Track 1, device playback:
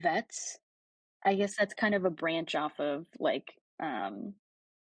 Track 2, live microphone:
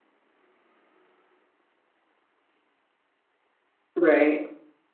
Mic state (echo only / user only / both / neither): user only